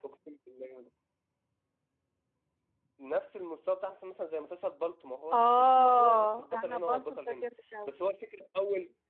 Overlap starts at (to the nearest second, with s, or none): 5 s